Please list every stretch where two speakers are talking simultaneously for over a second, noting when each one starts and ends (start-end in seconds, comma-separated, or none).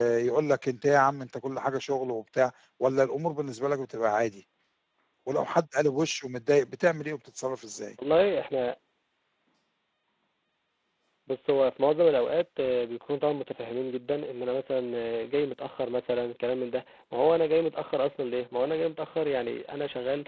none